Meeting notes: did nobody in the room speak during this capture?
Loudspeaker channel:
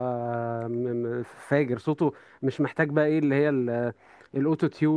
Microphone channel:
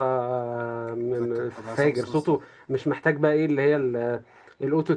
No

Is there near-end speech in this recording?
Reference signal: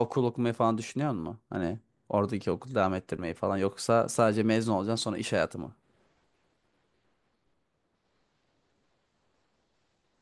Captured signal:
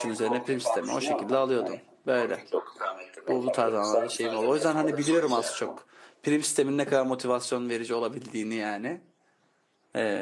Yes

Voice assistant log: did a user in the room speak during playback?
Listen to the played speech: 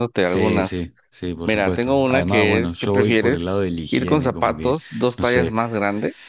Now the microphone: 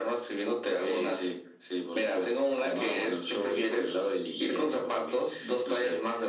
No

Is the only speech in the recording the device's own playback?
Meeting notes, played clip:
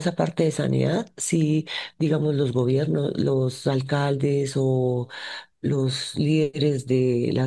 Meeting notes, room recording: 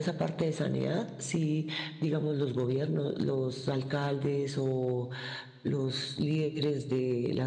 Yes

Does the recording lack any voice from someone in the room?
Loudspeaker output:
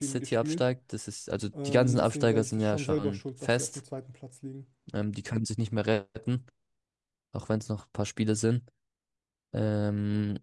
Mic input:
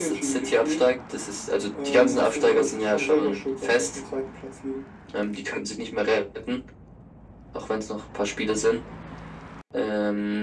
Yes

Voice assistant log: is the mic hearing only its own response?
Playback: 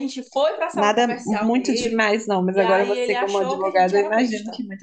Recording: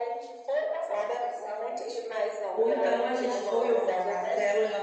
No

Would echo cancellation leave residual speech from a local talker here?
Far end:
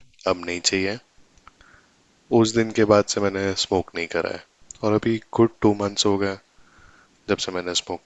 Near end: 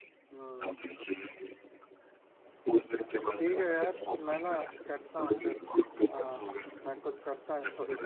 Yes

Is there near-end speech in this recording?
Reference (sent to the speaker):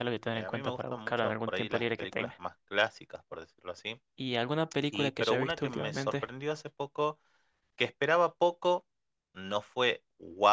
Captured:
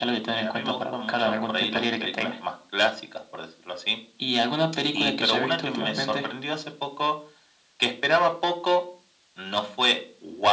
No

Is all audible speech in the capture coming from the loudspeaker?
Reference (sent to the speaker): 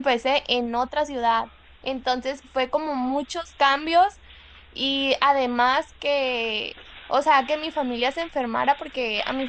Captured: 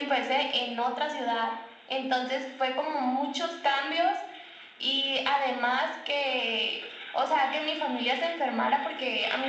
Yes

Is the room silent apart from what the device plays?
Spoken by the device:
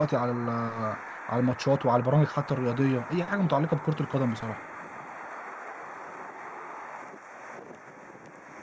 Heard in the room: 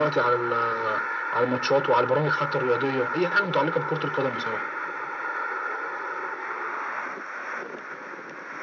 Yes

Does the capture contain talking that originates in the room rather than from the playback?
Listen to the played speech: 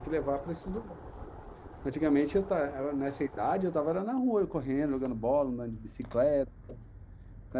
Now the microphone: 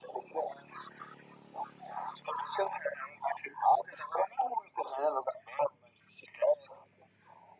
No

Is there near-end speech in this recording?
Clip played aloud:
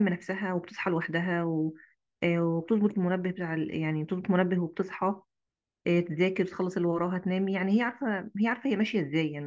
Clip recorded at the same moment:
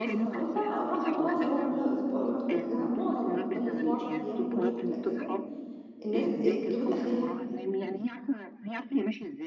Yes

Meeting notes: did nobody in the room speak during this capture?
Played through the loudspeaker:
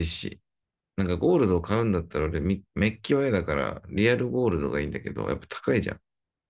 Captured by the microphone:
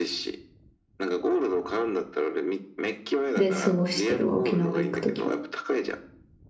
No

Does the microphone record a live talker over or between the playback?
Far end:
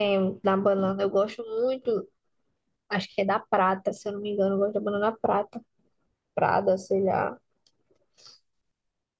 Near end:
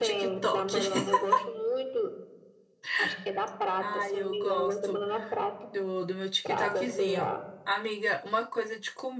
Yes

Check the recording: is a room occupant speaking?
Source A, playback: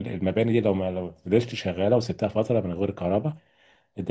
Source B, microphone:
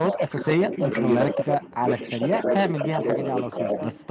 Yes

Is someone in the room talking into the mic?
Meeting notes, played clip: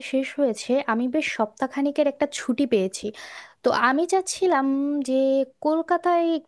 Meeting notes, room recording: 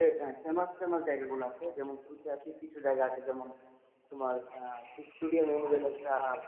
Yes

